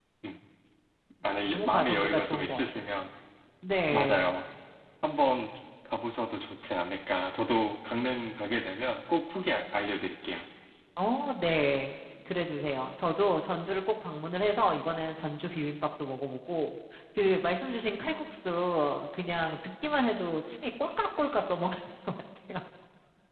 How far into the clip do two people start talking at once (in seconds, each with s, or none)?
1.5 s